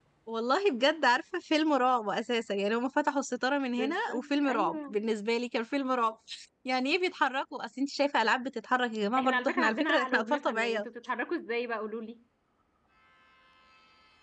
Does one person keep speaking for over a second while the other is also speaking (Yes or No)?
Yes